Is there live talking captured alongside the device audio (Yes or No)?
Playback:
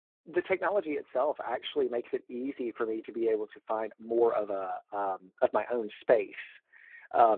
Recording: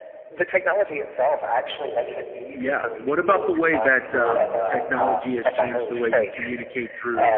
Yes